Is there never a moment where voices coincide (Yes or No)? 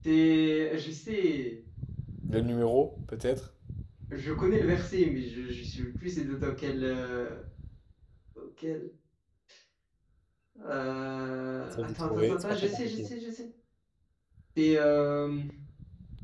No